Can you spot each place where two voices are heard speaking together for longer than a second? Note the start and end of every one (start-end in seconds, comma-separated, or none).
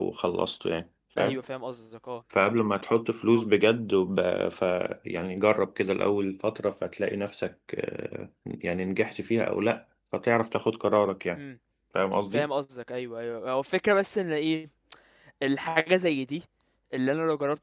none